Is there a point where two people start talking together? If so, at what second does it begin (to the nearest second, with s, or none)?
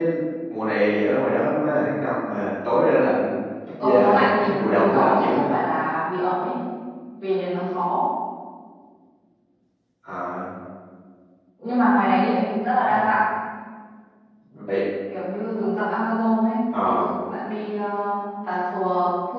4 s